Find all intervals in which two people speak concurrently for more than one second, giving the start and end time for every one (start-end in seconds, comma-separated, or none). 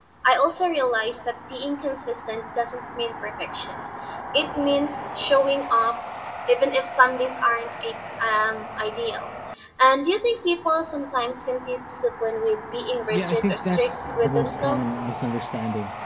13.1-14.9